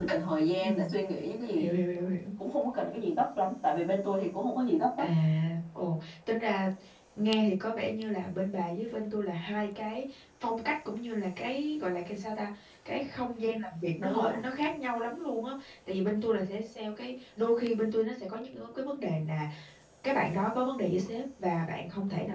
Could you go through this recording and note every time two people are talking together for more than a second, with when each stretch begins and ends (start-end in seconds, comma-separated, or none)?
none